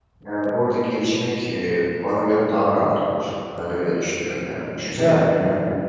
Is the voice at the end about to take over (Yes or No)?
No